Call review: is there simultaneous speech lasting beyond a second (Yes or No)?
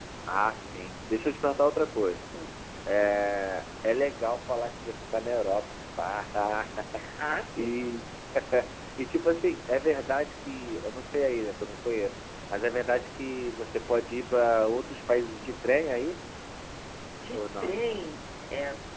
No